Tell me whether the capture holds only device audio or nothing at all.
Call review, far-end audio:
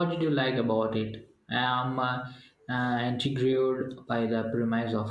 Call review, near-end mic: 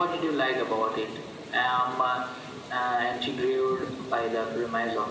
Yes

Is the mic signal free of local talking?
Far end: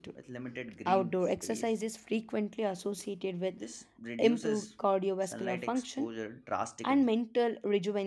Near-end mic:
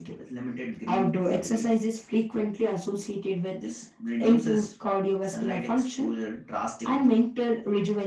Yes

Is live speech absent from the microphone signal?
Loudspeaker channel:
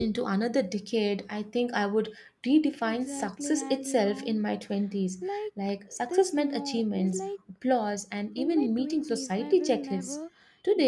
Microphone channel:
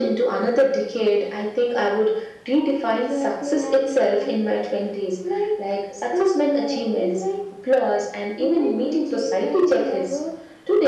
Yes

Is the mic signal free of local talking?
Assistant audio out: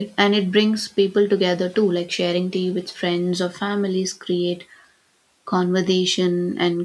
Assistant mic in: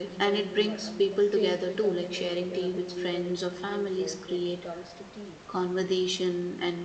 No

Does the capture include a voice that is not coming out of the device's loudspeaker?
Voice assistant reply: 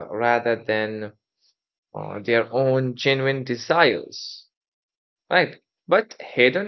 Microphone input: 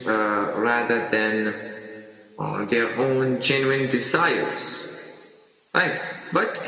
No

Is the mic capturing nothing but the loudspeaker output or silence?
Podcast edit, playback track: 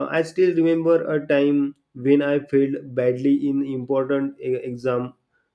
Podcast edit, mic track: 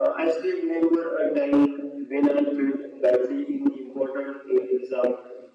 Yes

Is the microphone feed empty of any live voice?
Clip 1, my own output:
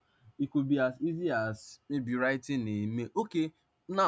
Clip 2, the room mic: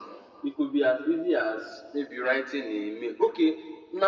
Yes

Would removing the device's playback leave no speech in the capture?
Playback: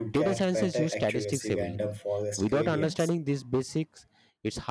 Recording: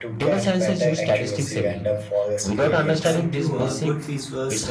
No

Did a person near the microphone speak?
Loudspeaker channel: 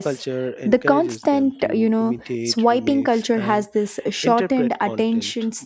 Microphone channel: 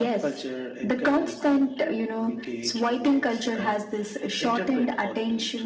No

